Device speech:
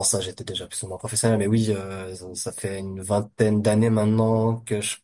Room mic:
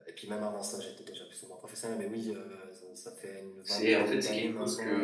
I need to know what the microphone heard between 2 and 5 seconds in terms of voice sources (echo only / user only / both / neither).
both